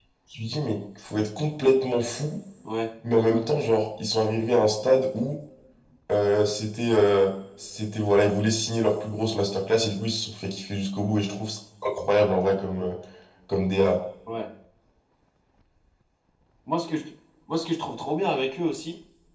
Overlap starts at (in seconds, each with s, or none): none